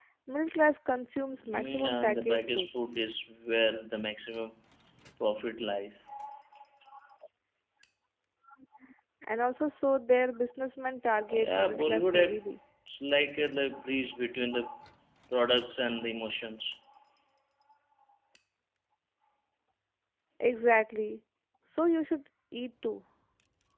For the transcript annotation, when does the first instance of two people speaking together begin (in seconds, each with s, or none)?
1.5 s